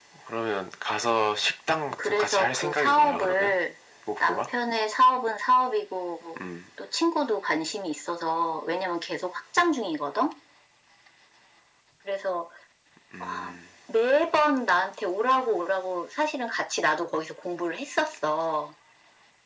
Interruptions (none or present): present